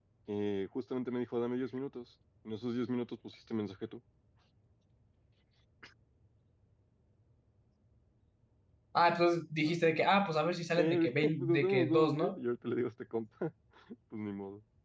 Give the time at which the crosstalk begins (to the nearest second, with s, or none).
11 s